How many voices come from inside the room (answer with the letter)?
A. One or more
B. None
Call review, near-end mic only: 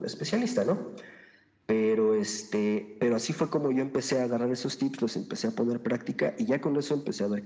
B